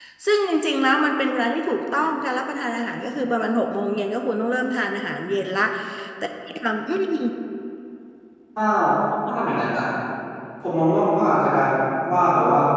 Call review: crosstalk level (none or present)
none